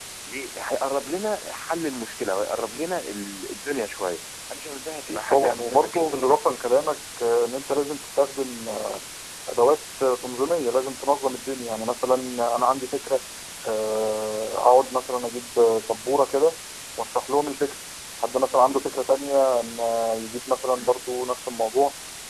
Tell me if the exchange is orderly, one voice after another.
No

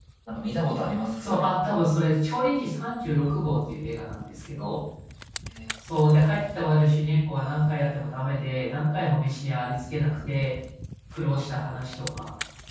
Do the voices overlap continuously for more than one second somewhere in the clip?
No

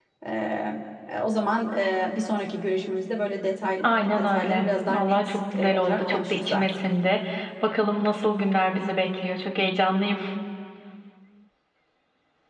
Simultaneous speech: Yes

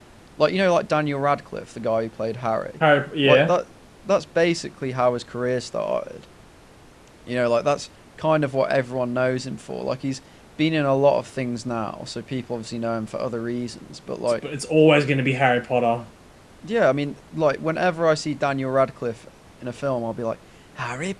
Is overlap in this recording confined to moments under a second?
Yes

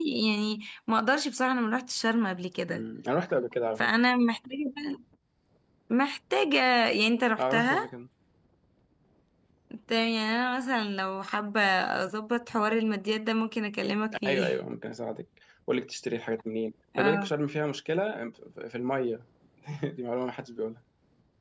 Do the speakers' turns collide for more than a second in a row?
No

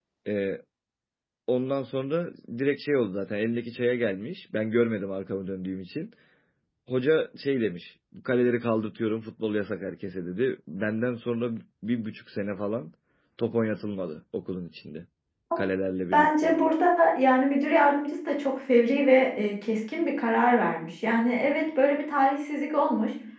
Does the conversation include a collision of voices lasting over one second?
No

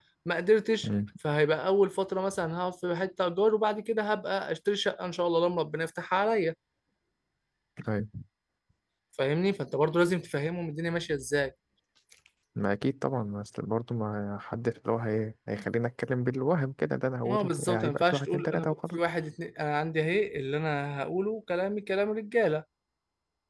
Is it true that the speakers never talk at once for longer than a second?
No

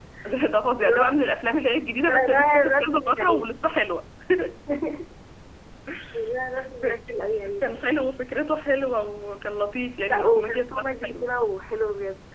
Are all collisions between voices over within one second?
No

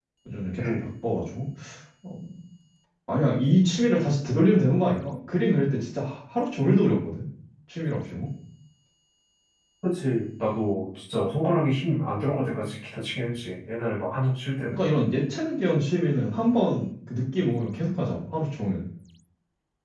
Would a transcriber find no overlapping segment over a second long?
Yes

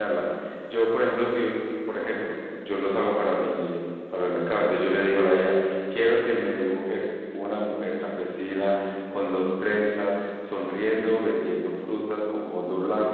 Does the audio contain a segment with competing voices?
No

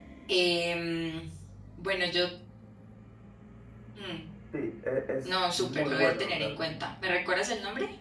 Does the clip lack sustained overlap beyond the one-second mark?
No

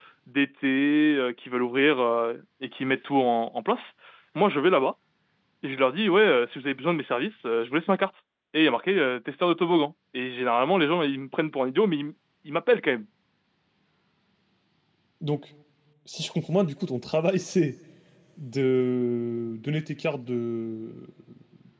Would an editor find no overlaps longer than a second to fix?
Yes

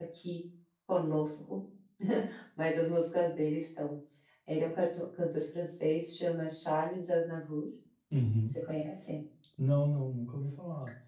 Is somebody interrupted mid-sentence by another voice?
No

